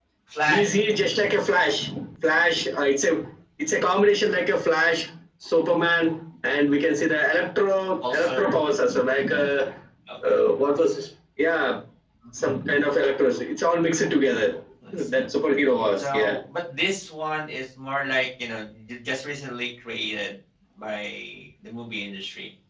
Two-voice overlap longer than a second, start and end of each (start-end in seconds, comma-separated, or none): none